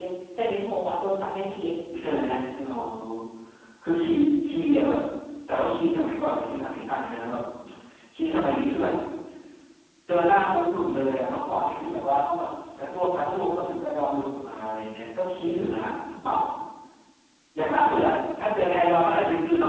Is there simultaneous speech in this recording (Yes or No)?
No